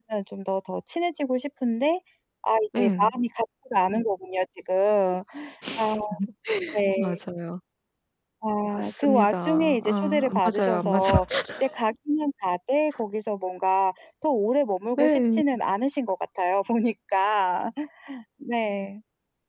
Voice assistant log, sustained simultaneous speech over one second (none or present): present